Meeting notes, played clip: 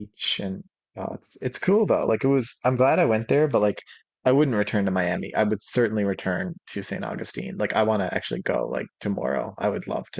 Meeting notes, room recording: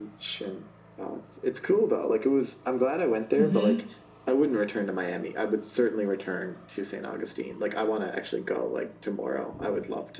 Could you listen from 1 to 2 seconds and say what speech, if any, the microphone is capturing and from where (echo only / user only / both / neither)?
echo only